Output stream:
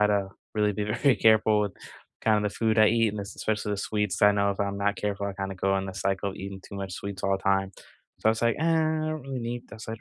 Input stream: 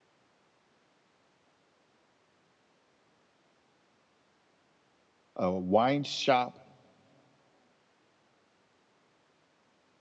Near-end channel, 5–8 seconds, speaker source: user only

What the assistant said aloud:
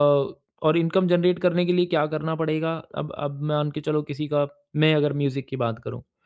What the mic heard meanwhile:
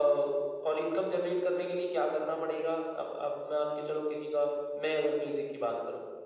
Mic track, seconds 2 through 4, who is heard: echo only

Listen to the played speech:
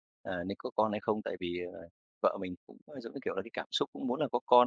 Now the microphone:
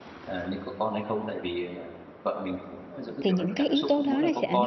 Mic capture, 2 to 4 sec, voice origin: both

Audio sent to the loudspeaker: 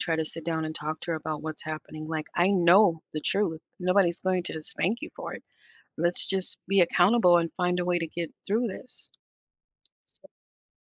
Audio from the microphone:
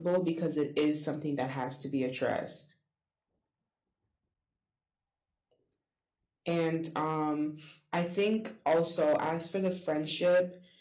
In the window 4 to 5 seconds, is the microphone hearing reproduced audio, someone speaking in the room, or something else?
neither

